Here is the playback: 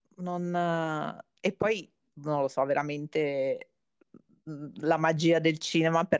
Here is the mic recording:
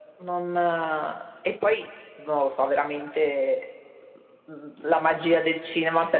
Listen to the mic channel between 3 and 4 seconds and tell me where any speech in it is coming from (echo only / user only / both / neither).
echo only